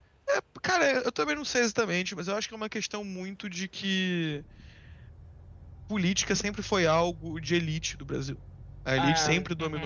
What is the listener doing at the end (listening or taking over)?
listening